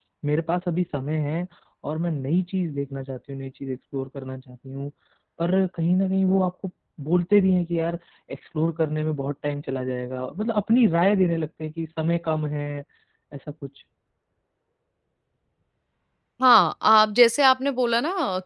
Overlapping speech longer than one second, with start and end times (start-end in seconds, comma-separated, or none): none